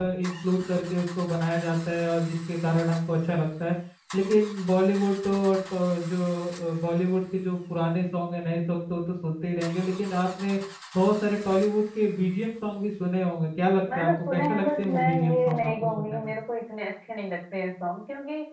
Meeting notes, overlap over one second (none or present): present